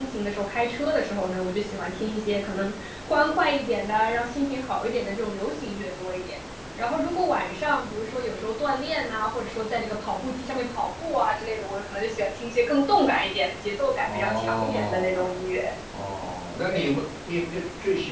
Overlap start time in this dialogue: 13.9 s

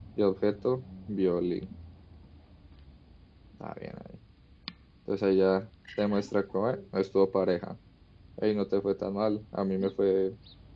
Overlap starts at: none

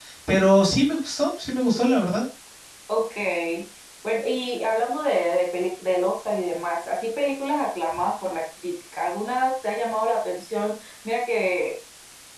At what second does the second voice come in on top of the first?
none

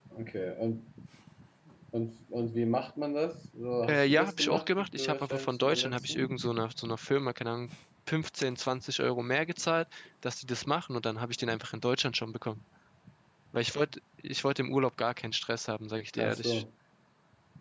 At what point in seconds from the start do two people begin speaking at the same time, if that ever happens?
3.9 s

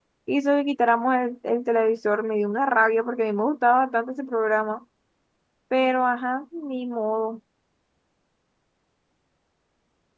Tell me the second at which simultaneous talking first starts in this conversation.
none

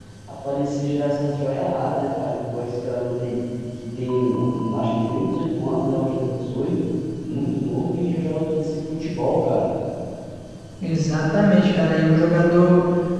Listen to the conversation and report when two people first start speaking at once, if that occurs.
none

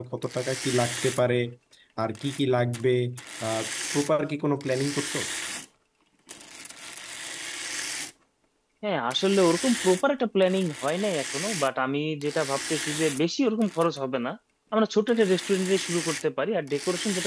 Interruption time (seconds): none

